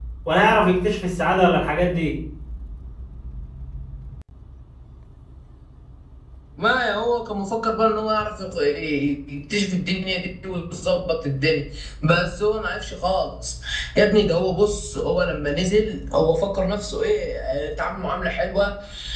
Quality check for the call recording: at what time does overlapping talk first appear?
none

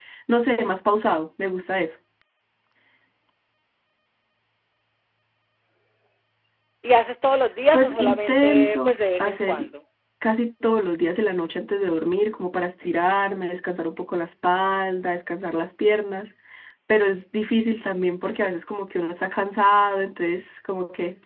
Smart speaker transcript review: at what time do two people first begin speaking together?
7.7 s

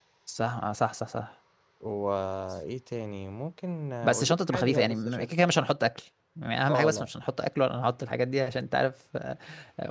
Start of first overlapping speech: 4.0 s

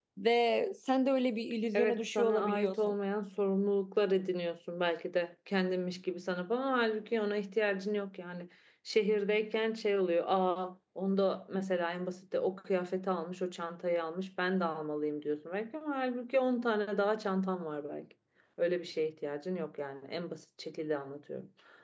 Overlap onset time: 1.7 s

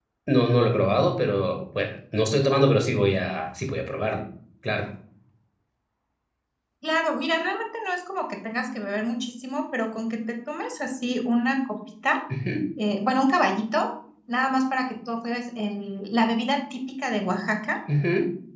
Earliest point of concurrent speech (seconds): none

